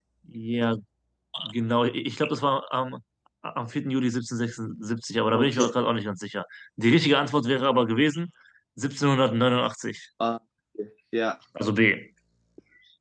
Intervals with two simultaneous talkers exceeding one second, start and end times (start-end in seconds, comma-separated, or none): none